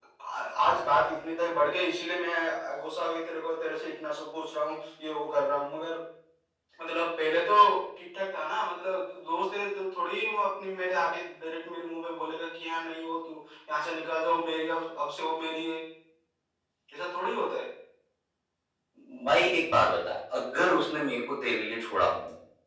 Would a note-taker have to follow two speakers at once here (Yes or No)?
No